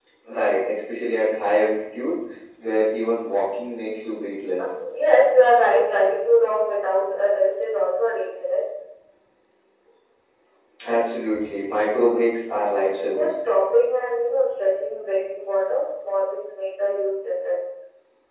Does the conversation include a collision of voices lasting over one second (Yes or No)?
No